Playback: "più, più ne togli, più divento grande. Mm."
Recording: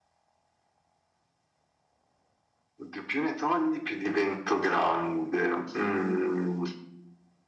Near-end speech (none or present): none